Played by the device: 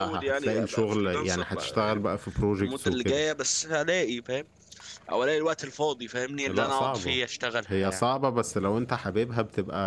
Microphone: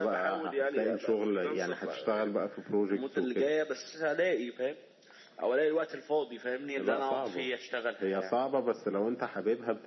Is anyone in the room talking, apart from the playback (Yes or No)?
No